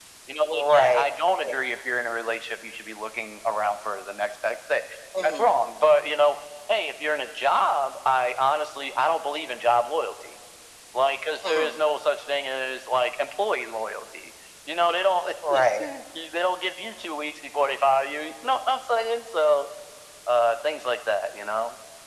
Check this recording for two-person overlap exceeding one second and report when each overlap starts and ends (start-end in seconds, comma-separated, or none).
none